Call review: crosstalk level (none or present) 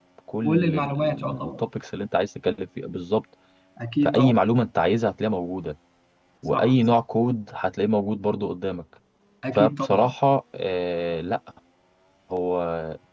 present